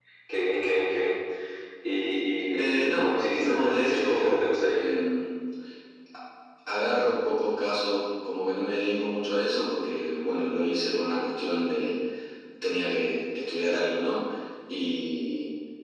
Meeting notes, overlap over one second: present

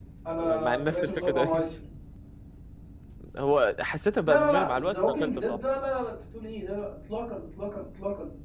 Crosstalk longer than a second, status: present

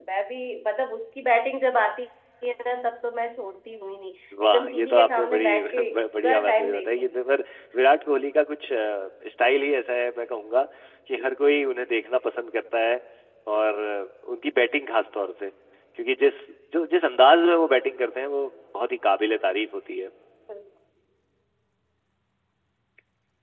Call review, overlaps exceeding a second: present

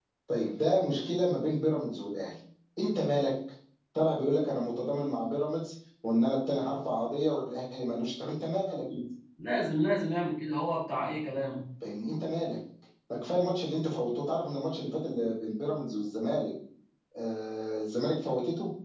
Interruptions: none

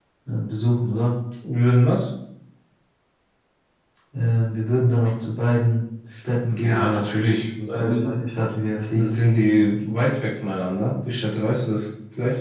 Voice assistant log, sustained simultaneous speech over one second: none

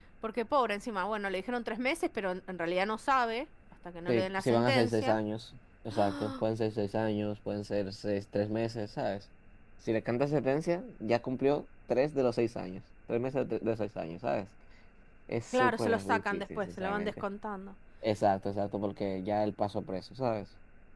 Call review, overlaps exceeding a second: present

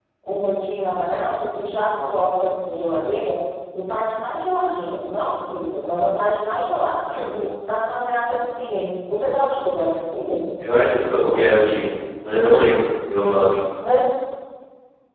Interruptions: none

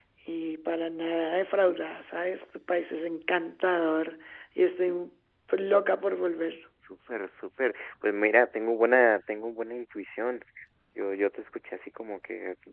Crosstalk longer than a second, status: none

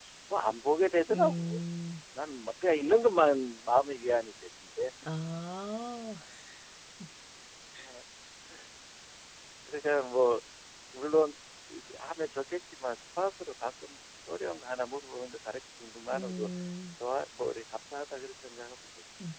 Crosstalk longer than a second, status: none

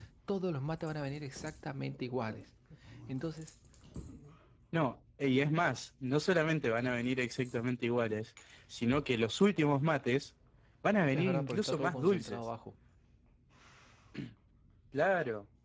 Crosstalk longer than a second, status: present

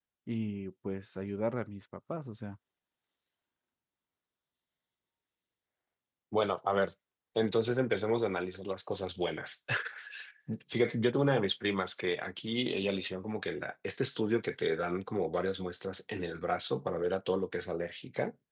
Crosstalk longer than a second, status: none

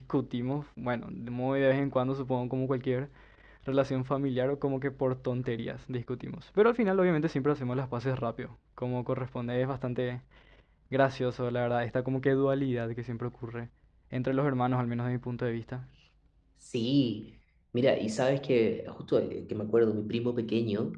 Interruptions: none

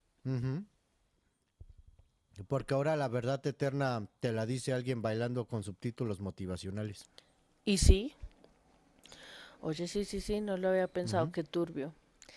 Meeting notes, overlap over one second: none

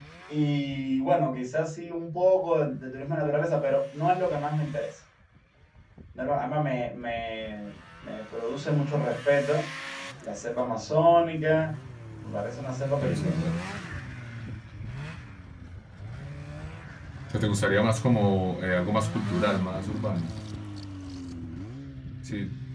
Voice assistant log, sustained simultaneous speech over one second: none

